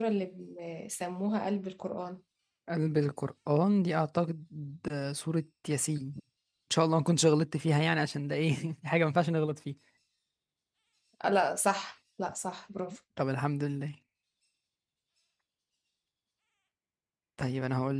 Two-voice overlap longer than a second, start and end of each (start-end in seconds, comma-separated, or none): none